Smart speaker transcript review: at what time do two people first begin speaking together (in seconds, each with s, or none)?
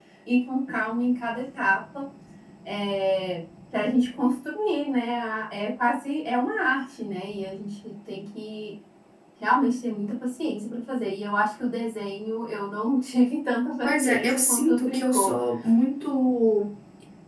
13.8 s